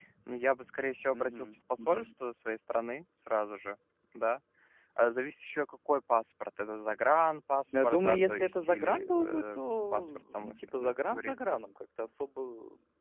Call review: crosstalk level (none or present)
present